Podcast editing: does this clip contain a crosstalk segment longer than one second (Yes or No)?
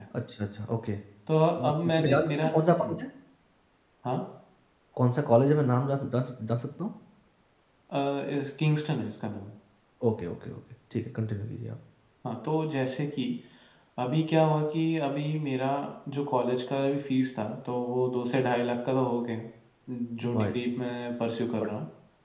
Yes